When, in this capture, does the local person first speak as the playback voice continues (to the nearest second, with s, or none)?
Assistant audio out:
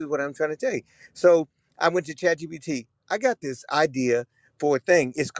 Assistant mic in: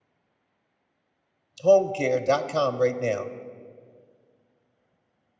2 s